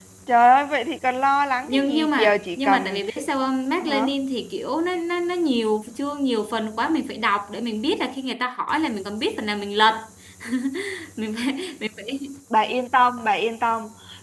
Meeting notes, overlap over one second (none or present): present